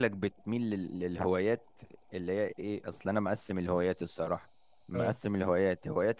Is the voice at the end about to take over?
No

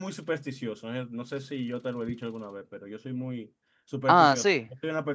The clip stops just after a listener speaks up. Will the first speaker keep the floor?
Yes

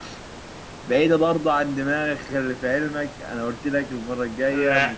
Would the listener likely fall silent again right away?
Yes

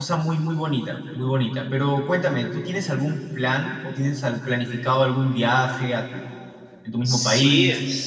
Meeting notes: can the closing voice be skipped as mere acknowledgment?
No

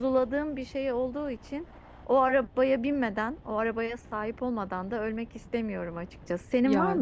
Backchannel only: Yes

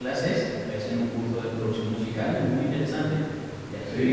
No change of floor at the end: Yes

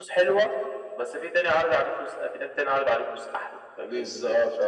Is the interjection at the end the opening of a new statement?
Yes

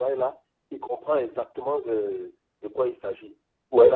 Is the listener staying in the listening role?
No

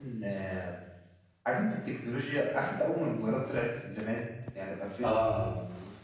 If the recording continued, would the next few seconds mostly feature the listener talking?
No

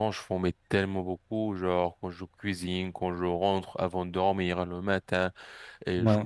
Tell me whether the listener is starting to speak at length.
No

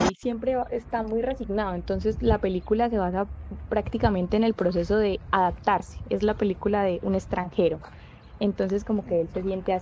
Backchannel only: Yes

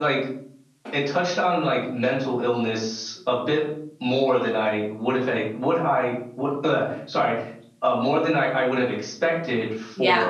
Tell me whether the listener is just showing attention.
Yes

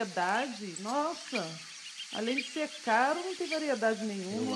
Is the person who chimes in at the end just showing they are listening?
No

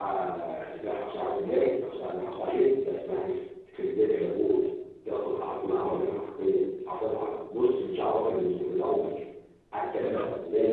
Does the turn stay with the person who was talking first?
Yes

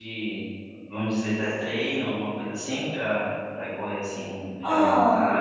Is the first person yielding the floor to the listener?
Yes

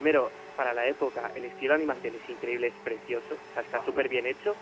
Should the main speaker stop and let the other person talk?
No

